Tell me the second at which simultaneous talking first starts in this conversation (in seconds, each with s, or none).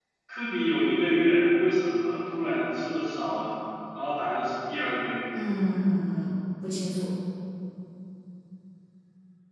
none